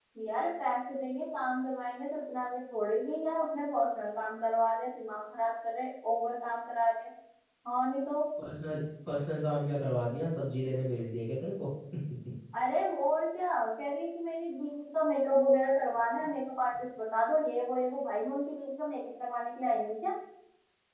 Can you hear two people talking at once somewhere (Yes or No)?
No